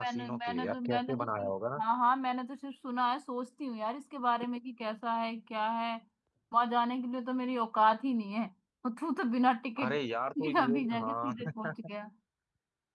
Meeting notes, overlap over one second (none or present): present